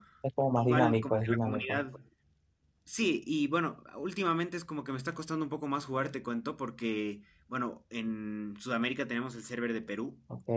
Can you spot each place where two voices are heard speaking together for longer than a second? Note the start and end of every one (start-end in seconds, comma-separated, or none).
0.6-1.8